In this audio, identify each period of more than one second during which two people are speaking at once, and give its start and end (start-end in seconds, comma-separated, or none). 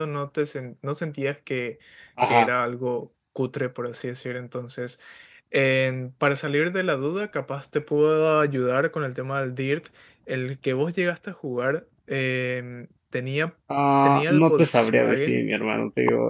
14.0-15.4